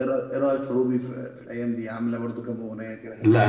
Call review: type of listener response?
taking over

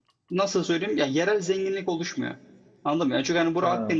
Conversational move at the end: listening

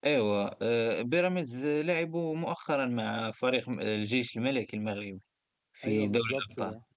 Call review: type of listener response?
taking over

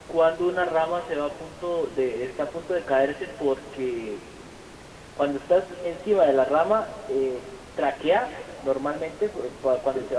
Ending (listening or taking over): listening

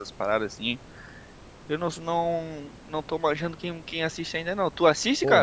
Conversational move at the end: taking over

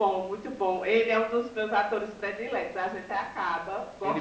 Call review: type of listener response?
taking over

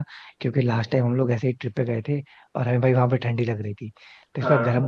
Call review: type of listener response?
listening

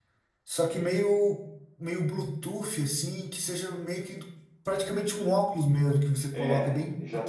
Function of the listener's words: taking over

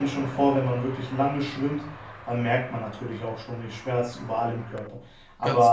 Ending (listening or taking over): listening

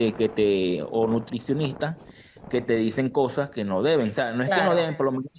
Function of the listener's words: listening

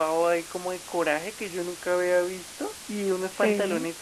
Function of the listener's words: listening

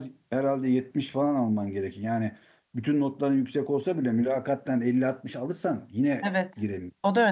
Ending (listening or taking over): taking over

